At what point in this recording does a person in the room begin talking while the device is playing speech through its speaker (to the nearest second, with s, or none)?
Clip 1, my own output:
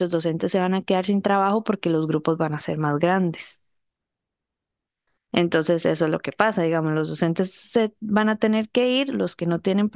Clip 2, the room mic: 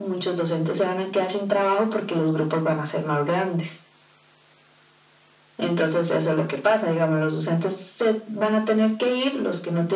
none